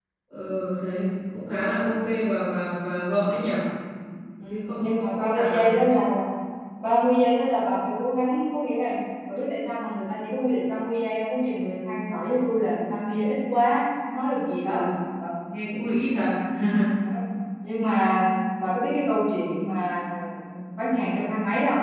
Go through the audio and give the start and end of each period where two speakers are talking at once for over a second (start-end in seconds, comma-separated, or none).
4.5-6.0